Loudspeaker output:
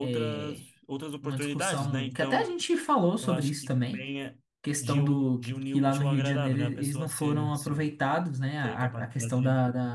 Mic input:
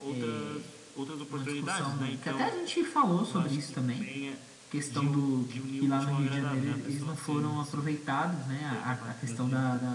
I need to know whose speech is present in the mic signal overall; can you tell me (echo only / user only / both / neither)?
echo only